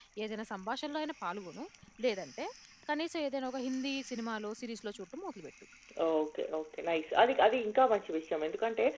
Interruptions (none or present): none